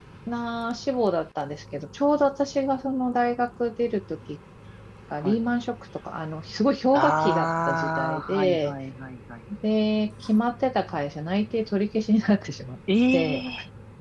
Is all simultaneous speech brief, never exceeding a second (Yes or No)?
No